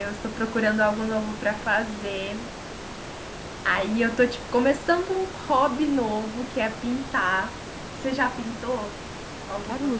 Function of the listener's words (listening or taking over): taking over